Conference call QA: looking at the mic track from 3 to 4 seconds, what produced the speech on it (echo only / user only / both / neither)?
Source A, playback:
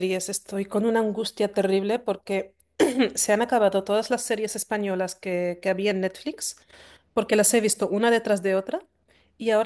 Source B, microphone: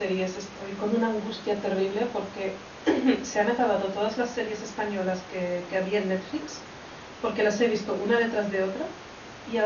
echo only